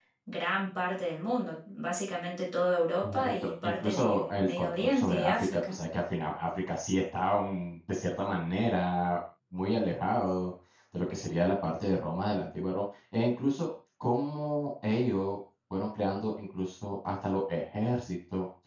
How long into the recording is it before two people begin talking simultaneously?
3.0 s

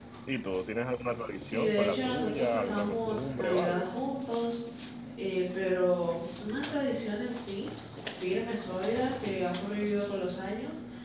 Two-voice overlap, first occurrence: 1.5 s

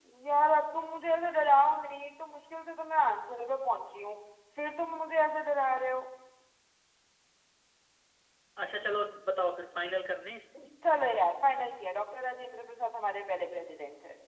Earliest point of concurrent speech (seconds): none

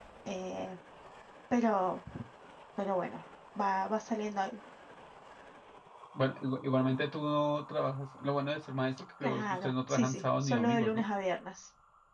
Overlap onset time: 9.2 s

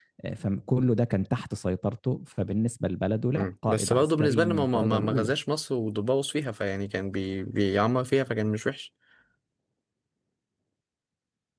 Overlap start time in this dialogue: 3.4 s

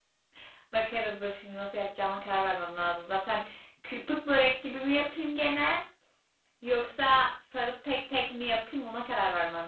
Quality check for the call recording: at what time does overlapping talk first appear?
none

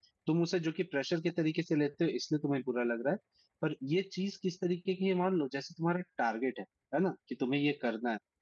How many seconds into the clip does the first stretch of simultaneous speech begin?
none

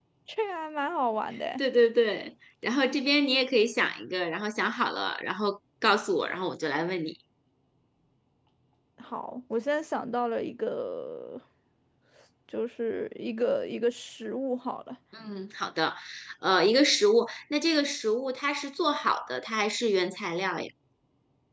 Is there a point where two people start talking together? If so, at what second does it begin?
none

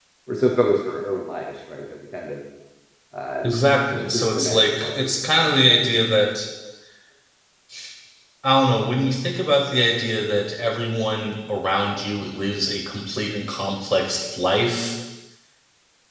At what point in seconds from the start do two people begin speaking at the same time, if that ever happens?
4.1 s

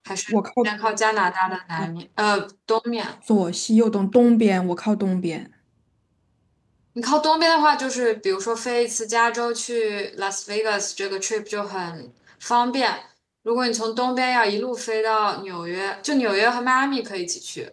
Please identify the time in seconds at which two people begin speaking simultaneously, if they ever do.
none

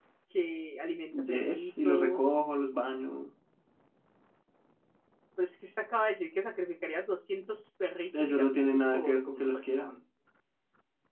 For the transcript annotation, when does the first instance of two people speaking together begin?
1.1 s

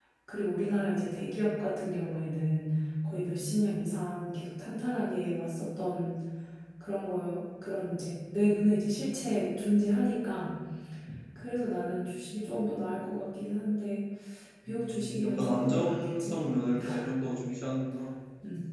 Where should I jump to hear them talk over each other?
14.7 s

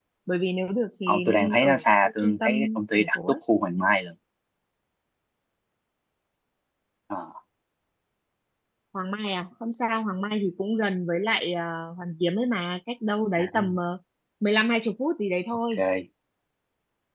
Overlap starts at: 1.1 s

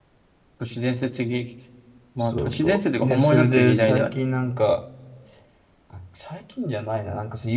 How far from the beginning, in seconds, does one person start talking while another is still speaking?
2.3 s

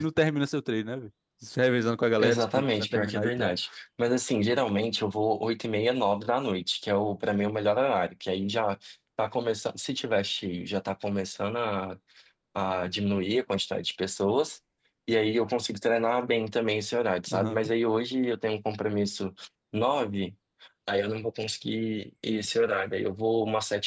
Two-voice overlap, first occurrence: 2.2 s

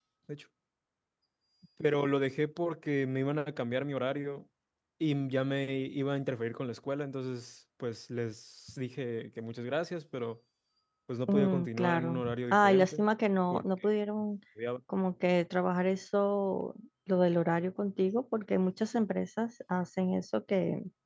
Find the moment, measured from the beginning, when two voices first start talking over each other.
11.3 s

